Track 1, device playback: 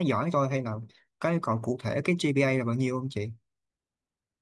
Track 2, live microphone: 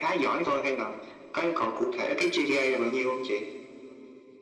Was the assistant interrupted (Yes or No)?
No